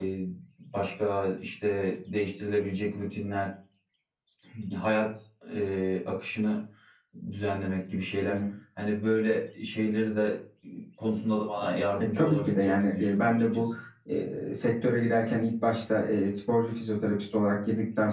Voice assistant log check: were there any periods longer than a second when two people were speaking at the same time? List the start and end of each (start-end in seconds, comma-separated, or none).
12.0-13.6